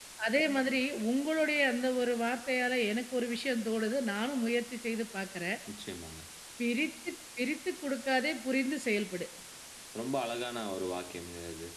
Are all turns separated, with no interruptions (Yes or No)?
Yes